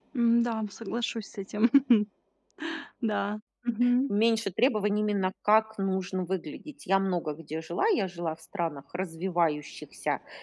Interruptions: none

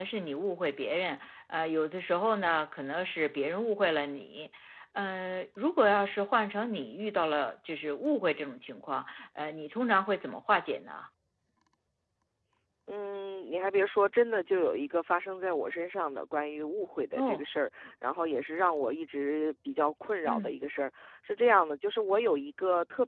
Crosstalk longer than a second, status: none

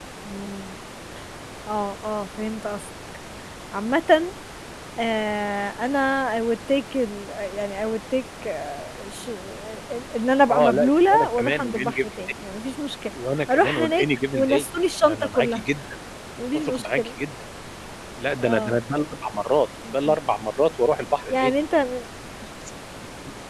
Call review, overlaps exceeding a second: present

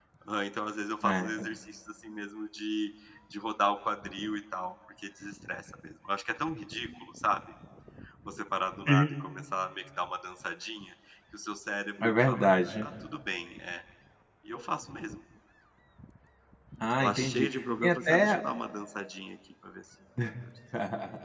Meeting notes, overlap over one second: present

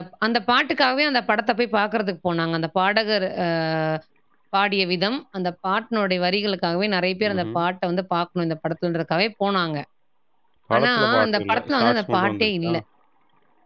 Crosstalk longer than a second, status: present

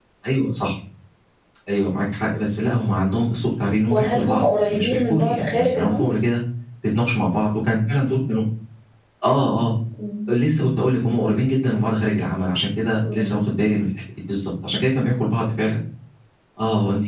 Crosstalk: present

